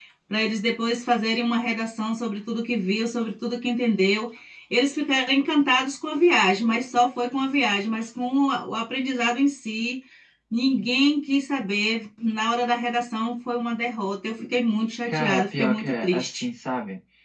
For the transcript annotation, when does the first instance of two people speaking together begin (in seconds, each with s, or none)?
15.1 s